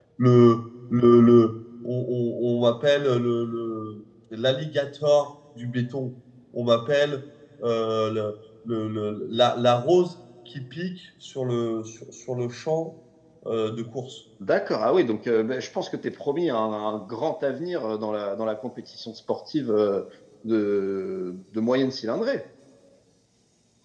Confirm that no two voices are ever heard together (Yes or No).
Yes